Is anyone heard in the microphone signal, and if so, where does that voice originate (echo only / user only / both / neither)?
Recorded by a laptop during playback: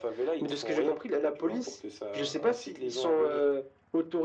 echo only